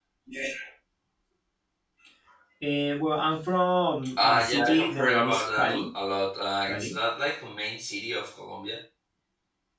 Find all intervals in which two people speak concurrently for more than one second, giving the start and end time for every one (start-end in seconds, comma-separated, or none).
4.2-5.9